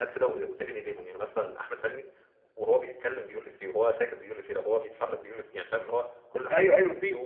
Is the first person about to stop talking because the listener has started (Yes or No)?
Yes